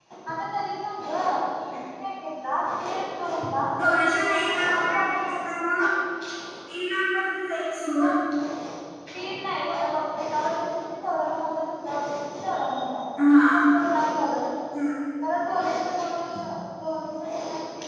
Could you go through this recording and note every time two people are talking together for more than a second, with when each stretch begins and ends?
3.8-5.9

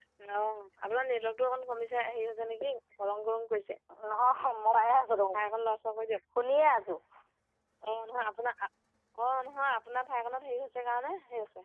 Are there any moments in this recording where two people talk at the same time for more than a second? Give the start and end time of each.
none

